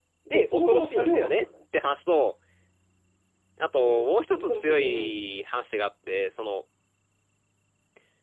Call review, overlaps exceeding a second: present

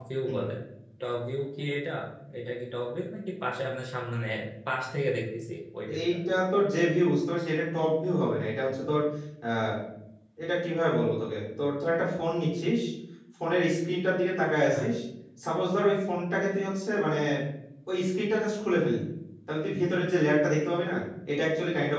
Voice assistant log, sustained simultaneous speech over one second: none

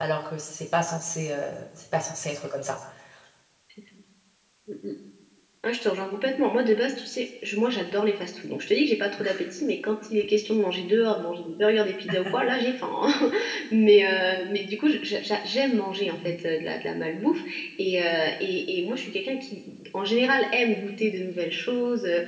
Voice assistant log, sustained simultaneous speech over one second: none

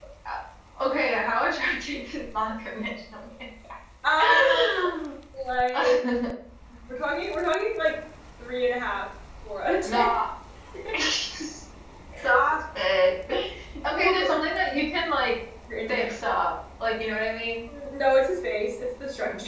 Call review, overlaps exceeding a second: none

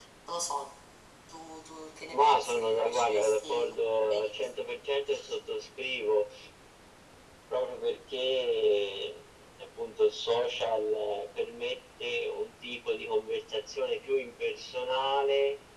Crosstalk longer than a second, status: present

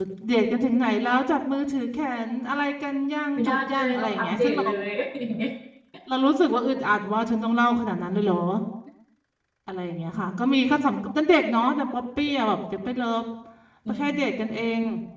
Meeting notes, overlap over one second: present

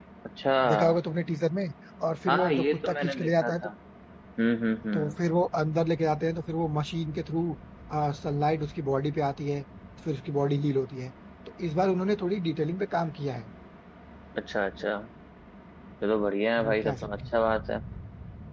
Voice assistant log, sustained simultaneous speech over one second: present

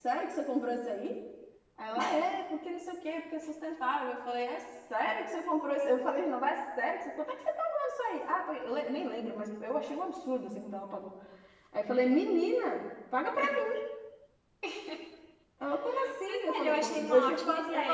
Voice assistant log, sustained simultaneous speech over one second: present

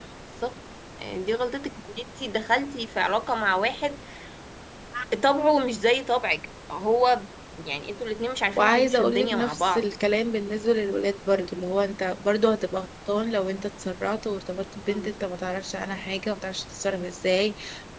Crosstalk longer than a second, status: present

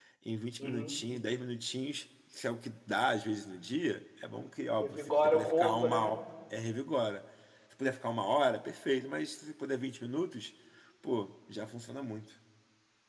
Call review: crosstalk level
present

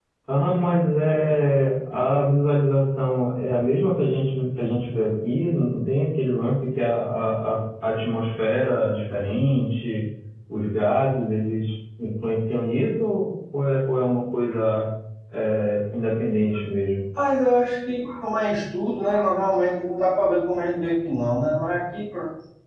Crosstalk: none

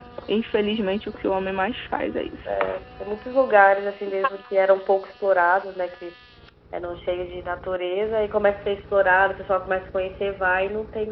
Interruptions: none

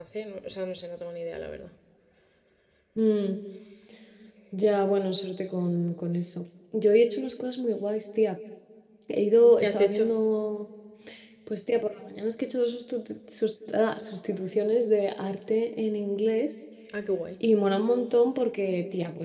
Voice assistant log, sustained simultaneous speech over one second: none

